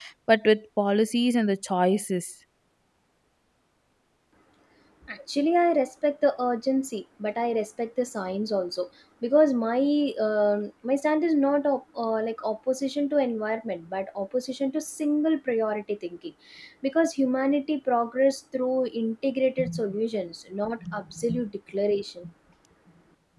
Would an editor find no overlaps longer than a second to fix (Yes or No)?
Yes